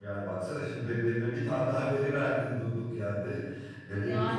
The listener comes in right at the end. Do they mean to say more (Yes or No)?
No